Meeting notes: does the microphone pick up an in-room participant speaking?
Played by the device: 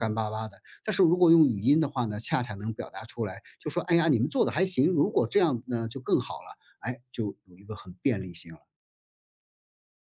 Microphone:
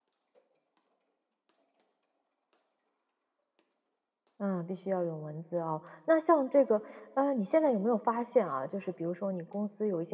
Yes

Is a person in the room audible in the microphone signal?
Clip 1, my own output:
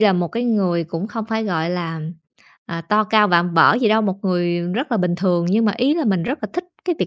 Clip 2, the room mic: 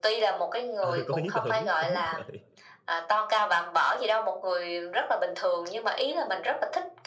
Yes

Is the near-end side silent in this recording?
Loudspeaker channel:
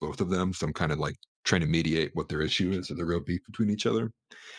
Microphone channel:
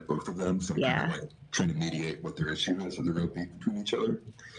No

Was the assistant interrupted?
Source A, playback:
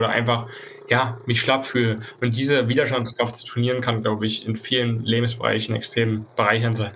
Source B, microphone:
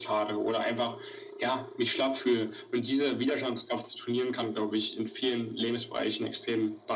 No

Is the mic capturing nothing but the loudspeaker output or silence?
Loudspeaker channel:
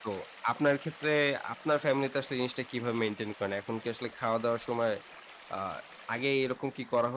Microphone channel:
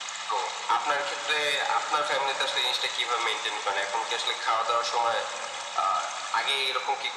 Yes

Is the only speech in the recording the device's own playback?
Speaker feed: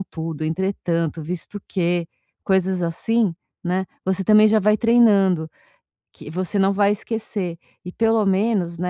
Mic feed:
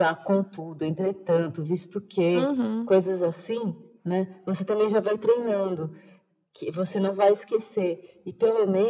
No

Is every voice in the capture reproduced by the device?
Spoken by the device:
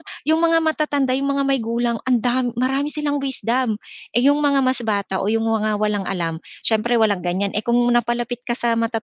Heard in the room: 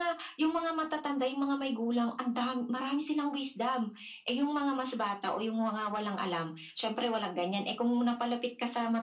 Yes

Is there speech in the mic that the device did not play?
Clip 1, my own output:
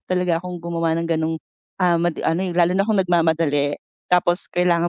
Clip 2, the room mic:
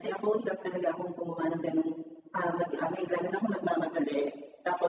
No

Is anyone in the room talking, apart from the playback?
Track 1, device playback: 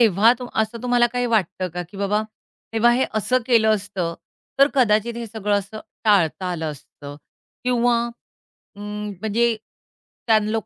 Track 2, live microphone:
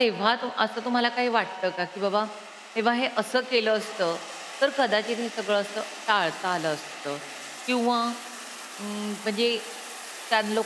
No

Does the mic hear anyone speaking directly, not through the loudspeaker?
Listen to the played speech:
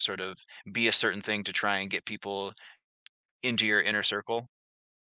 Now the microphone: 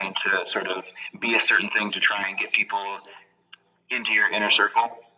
No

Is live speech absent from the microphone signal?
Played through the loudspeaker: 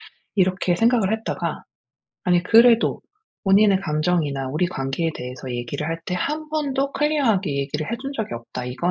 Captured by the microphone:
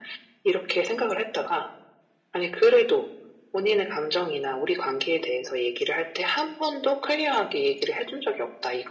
Yes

